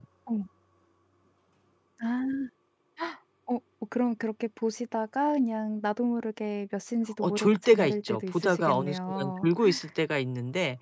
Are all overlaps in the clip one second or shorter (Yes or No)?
No